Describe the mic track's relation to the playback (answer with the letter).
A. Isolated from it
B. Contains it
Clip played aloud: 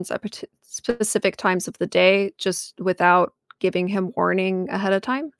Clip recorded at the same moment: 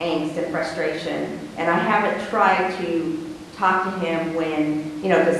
A